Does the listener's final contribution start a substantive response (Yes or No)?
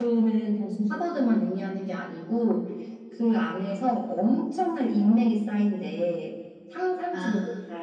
No